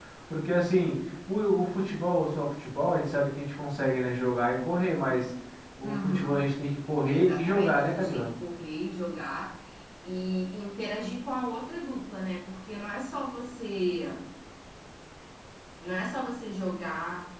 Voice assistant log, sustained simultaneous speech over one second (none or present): present